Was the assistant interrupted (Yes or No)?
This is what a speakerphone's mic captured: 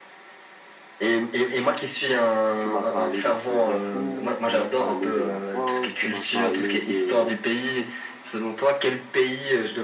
Yes